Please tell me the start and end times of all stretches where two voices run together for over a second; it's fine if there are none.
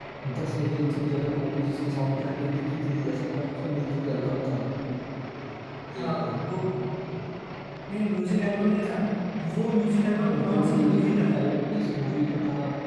10.2-11.4

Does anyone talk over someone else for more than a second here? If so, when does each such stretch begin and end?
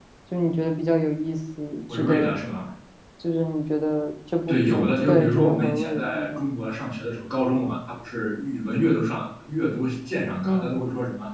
4.5-6.4

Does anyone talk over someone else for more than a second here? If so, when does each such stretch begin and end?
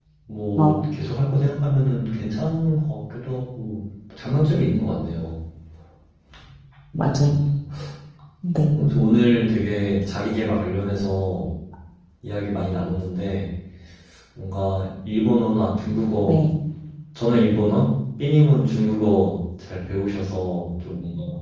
none

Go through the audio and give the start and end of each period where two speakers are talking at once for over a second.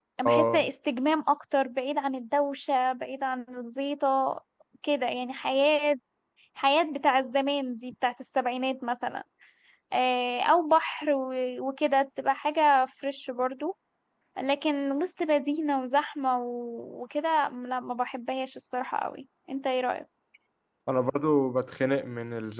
none

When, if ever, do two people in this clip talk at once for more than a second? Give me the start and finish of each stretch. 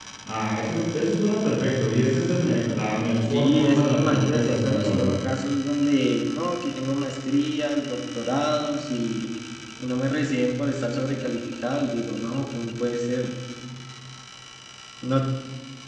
3.3-5.2

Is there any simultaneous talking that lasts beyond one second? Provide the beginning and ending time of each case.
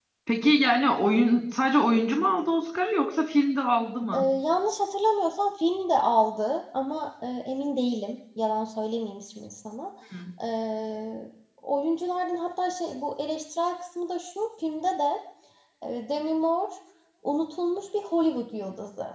none

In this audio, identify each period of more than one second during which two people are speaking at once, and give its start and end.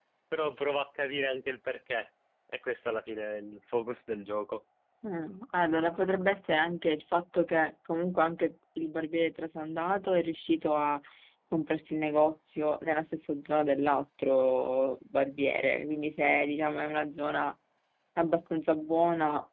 none

